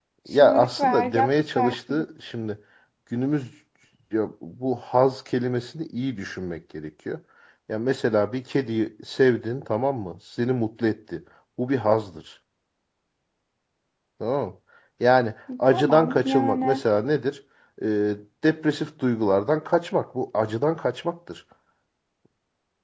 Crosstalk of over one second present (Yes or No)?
Yes